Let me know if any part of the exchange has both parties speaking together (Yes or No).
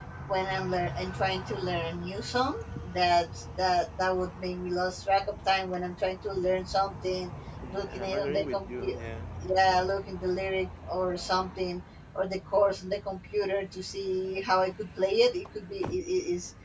Yes